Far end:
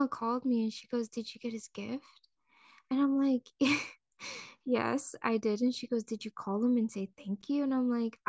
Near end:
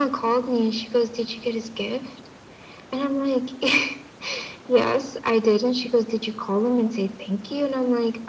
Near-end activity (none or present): none